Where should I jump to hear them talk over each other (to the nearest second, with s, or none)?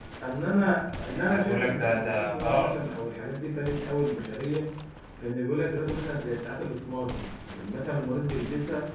1 s